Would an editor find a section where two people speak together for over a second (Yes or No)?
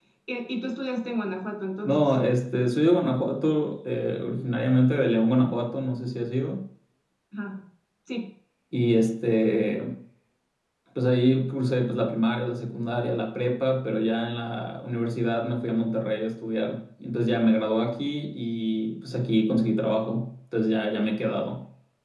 No